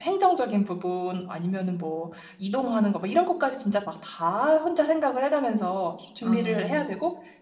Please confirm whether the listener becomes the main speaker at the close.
No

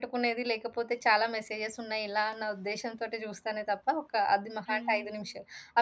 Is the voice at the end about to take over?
No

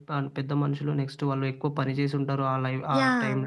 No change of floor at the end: No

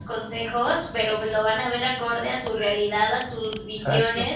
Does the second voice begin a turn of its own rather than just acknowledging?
No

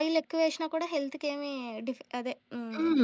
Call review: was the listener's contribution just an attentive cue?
No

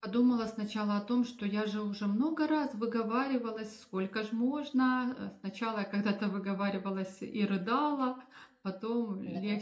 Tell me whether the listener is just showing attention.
Yes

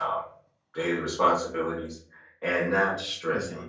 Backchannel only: Yes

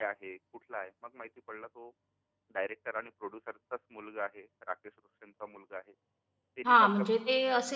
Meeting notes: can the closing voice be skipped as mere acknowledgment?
No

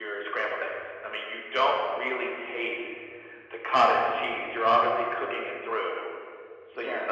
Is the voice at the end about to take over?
No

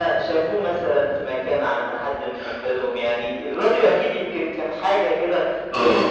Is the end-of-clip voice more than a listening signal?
Yes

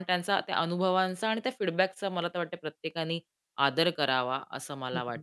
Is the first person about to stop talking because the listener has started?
Yes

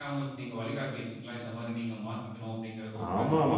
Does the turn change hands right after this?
Yes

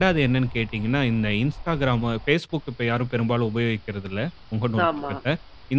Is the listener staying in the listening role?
Yes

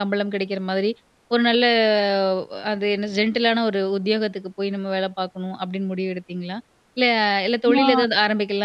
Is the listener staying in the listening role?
Yes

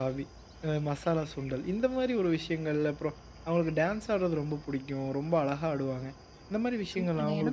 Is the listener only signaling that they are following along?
No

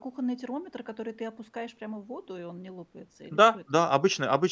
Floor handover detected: Yes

